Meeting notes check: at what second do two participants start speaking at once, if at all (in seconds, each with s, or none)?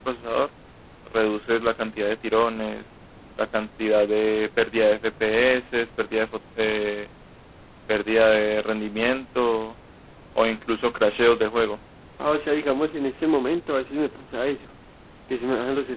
none